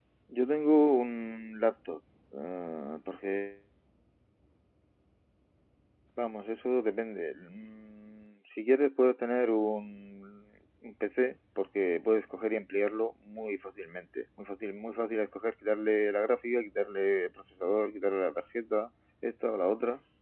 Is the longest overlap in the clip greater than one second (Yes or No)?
No